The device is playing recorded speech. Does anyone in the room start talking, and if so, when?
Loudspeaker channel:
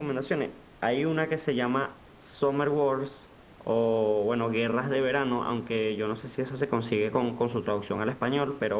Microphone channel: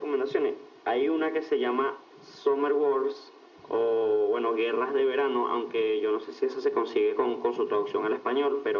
none

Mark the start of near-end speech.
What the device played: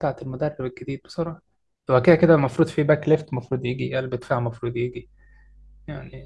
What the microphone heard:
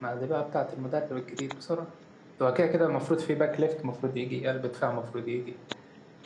none

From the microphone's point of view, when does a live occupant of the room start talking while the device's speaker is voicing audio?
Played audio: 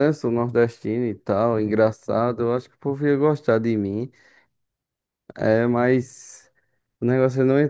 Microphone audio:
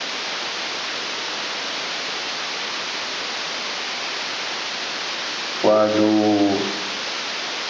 5.6 s

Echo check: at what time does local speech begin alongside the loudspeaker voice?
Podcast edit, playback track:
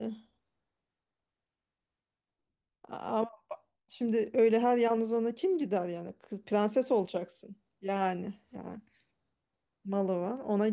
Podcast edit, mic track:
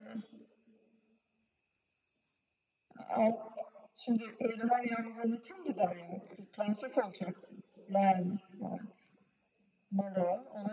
none

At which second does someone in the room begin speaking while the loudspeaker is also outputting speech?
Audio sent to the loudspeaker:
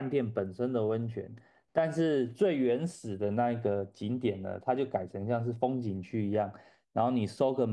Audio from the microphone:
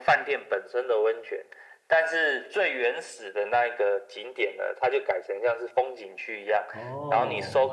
6.7 s

